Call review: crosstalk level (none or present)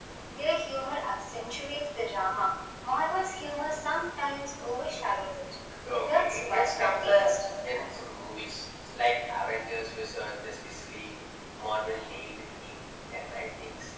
present